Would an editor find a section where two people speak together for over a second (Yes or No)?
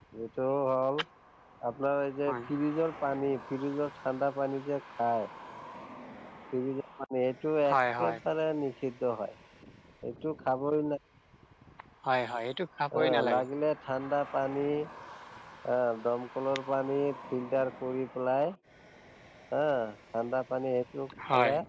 No